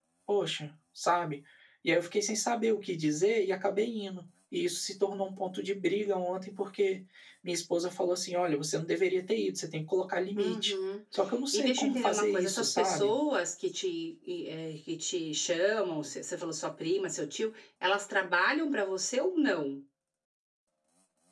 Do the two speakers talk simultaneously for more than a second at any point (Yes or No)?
Yes